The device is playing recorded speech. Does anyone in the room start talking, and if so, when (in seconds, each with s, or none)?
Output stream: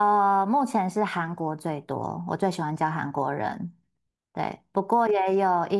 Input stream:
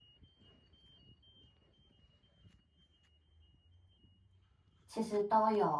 4.9 s